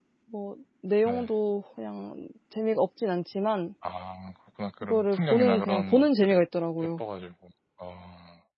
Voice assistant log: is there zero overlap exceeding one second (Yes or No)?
No